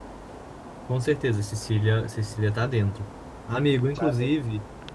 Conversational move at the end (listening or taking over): listening